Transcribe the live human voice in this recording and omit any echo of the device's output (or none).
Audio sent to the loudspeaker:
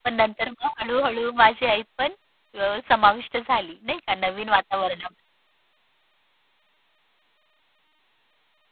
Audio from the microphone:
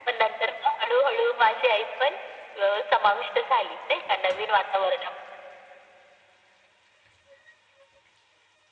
none